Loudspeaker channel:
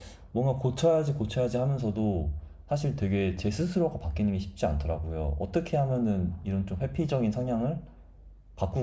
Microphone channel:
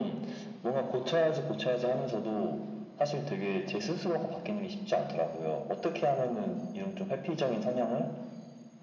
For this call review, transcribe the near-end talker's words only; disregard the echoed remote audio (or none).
none